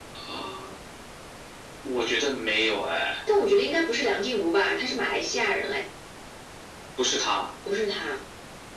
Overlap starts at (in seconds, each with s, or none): none